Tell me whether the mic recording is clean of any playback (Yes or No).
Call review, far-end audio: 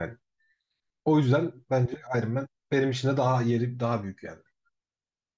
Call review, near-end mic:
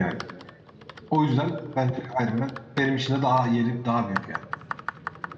No